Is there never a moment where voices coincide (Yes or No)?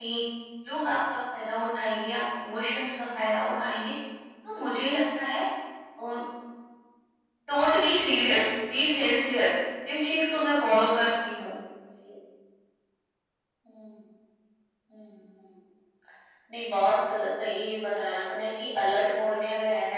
Yes